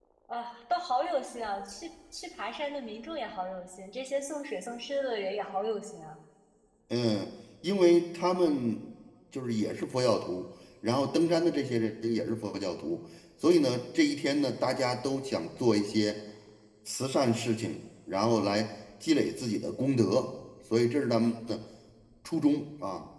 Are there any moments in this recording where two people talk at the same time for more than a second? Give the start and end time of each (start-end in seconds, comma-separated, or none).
none